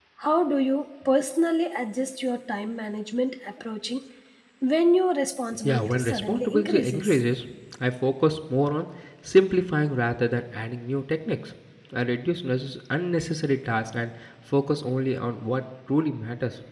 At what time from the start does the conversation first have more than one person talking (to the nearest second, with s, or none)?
6 s